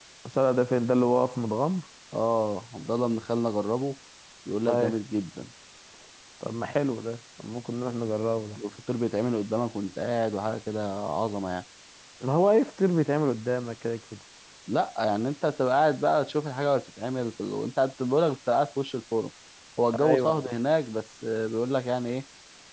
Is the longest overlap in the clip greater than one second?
No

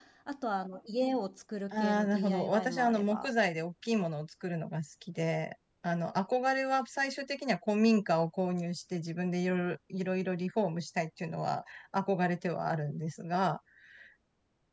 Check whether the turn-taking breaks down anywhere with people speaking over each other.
Yes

